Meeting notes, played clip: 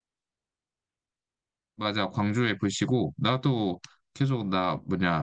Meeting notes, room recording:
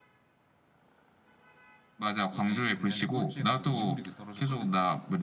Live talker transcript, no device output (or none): 얘네 작년에 꼴찌 해가지고 2부 리그 떨어졌거든.